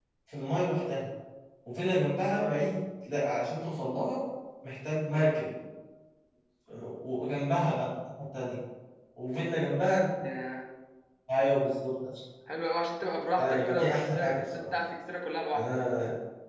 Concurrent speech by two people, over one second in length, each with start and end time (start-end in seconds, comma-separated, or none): 13.4-14.7